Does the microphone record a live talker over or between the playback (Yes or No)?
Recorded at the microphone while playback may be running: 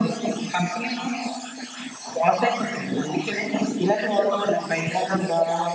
Yes